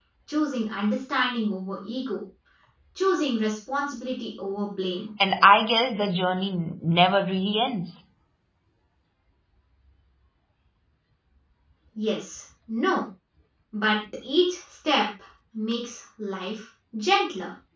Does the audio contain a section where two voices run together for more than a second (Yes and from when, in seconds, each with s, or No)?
No